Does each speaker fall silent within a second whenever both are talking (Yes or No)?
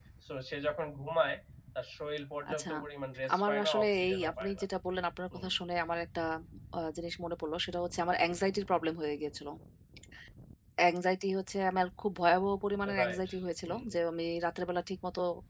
No